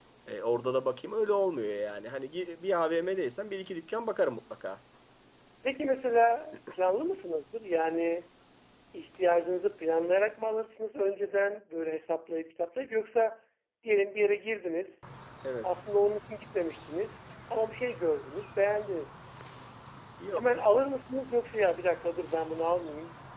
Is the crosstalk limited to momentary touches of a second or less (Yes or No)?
Yes